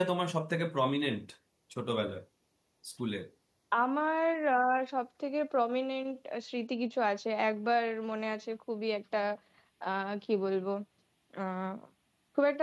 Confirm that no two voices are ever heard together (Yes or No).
Yes